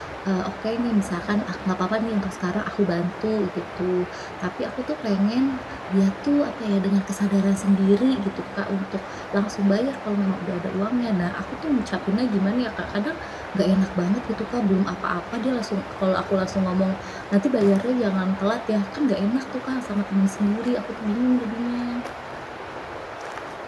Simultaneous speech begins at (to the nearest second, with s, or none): none